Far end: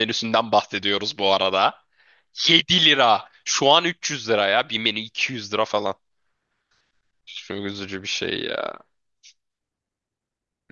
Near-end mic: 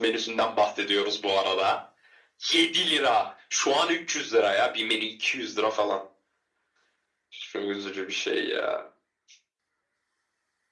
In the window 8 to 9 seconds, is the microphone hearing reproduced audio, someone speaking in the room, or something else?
echo only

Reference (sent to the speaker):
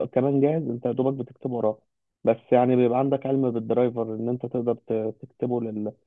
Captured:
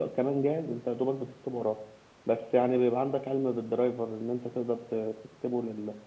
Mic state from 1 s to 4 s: echo only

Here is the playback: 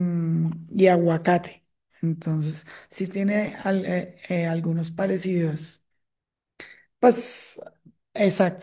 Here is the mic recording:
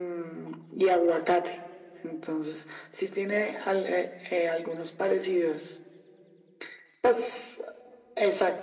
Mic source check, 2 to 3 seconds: echo only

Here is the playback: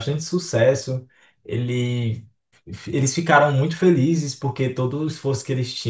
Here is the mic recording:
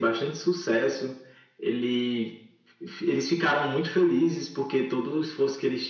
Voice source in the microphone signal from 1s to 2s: echo only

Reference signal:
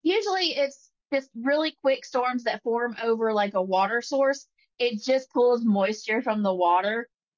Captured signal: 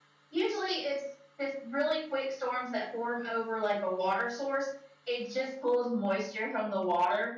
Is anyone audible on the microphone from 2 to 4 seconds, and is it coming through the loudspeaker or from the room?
echo only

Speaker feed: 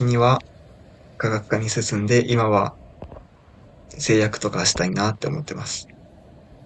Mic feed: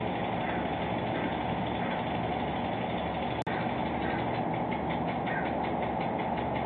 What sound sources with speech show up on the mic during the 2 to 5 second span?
neither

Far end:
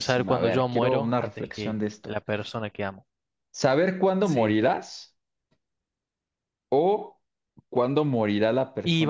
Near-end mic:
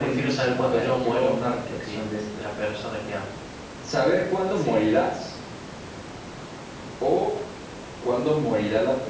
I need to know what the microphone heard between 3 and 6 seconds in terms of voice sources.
echo only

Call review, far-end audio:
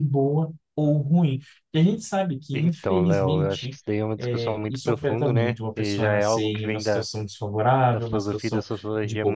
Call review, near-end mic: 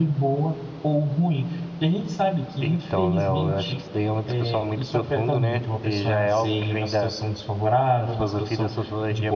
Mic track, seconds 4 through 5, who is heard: echo only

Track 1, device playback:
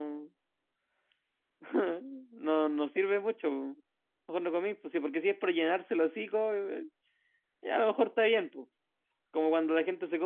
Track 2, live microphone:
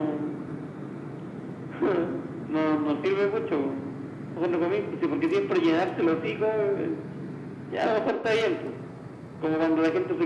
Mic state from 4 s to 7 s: echo only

